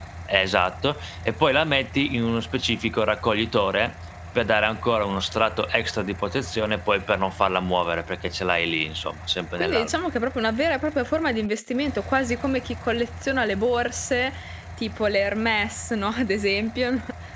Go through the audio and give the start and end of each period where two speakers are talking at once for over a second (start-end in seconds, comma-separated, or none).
none